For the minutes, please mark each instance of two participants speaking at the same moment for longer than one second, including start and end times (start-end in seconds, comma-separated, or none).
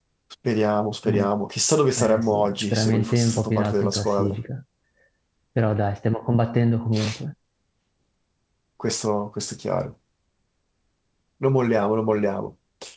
2.0-4.4